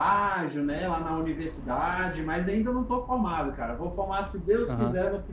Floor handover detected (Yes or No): No